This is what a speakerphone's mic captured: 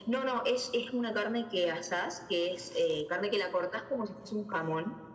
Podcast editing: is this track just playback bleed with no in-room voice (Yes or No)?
Yes